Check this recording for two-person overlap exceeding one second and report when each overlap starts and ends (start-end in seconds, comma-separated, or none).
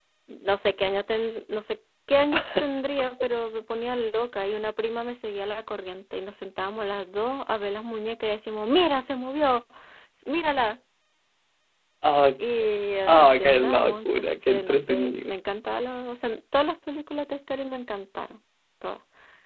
13.1-15.3